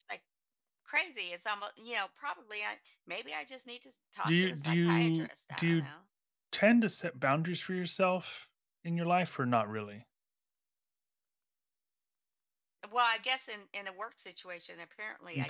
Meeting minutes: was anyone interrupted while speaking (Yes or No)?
Yes